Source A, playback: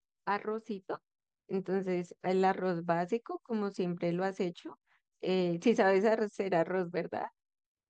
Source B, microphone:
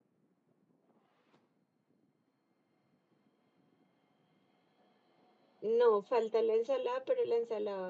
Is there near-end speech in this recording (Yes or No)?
Yes